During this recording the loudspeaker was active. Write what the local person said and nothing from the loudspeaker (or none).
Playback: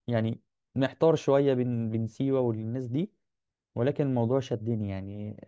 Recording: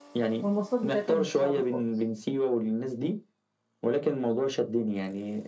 والمواصلات بتاعتهم مش صعبة خالص